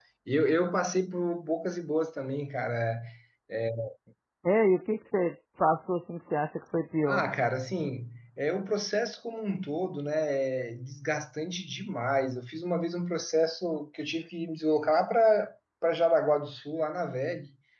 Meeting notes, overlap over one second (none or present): none